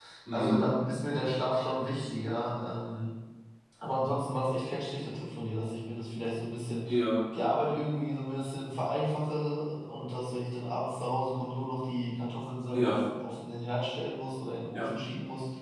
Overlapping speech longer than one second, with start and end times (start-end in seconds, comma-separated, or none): none